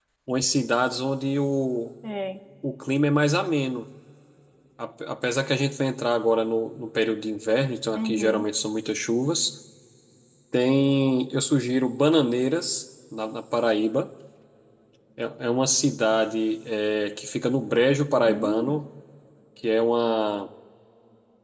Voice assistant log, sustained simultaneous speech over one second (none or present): none